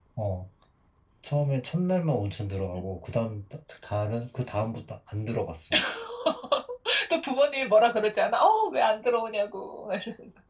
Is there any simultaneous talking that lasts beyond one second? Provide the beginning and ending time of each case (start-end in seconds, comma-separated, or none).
none